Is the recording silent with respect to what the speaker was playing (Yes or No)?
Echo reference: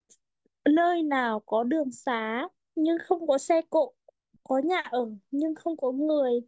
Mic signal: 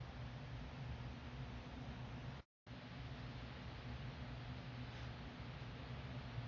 Yes